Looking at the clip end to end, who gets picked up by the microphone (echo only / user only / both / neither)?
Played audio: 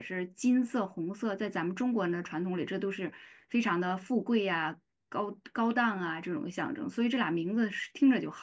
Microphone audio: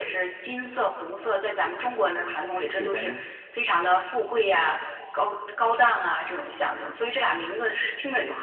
both